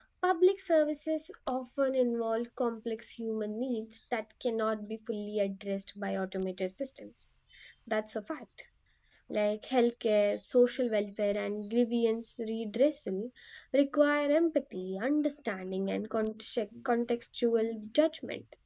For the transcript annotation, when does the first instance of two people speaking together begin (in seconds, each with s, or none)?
none